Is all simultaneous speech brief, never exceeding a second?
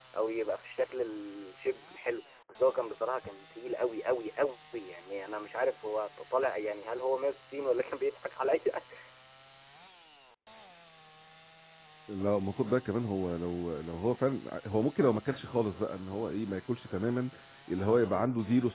Yes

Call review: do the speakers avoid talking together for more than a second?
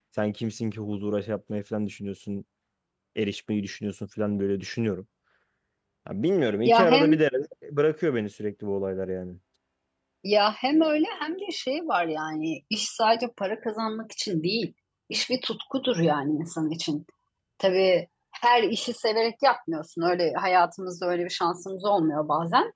Yes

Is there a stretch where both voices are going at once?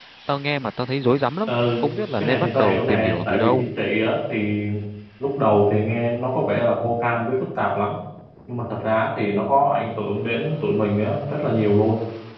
Yes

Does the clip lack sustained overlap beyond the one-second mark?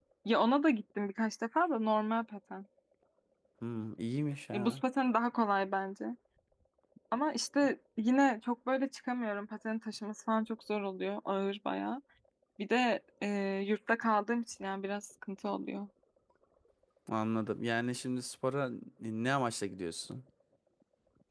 Yes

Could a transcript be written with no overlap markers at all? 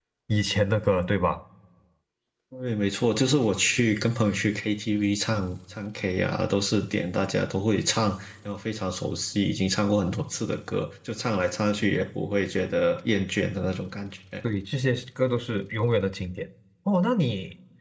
Yes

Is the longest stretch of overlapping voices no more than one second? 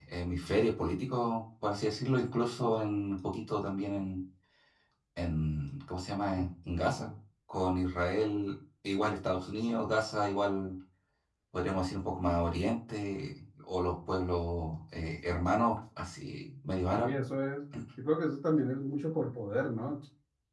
Yes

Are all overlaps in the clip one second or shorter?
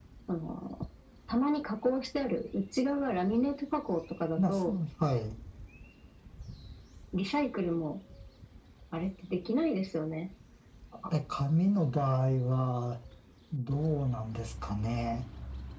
Yes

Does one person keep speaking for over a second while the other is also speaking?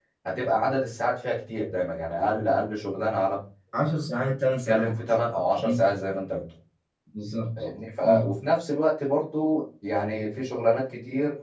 No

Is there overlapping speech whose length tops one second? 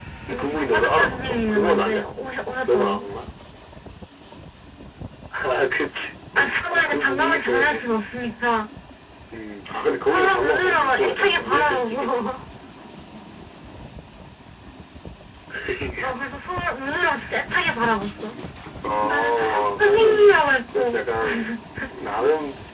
Yes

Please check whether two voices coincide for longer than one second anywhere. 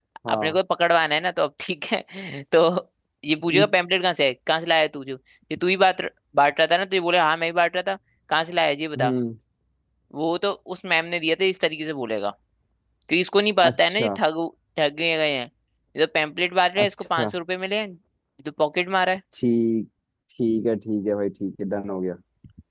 No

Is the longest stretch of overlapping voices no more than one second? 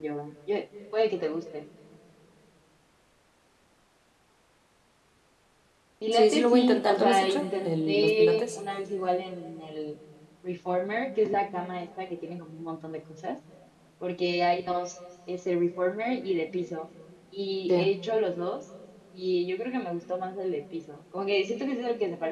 No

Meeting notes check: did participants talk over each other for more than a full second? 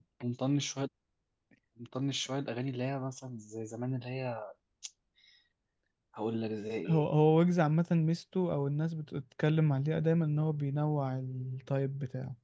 No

